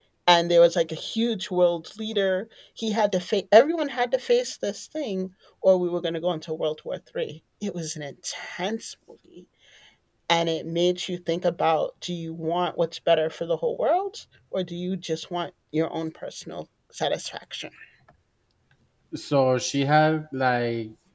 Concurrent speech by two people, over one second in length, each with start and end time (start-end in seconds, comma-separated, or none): none